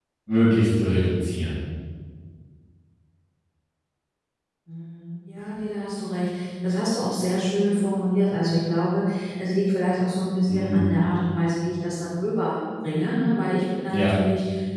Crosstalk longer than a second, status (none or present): none